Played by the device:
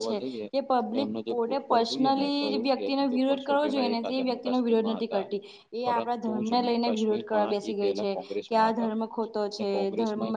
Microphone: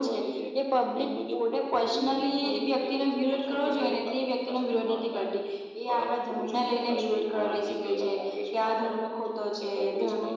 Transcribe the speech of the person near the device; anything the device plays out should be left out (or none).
none